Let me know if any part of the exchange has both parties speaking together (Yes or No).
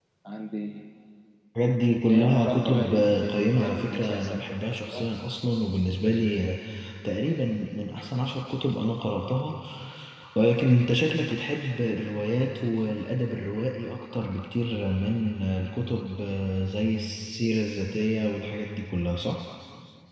Yes